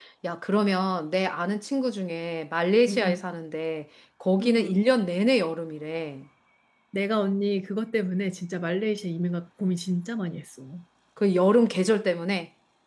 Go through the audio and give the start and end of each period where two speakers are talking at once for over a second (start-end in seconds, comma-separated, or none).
none